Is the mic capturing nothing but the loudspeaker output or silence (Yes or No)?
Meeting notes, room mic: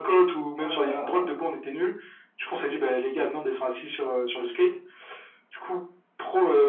No